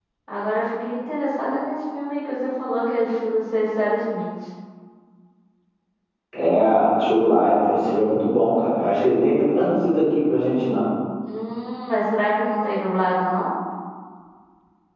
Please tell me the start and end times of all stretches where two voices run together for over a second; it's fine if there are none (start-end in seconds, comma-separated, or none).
none